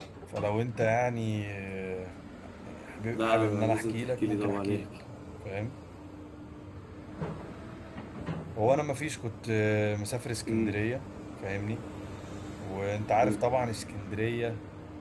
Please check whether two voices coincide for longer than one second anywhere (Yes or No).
Yes